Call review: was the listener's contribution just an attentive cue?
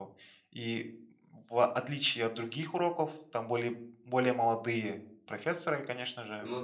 Yes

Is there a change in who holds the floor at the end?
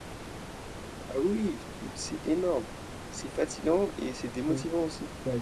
Yes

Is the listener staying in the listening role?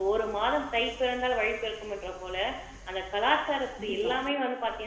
Yes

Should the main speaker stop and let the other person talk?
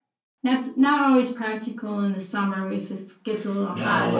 Yes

